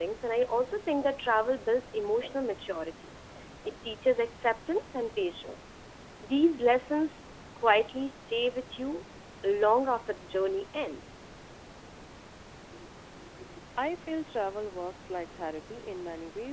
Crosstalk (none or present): none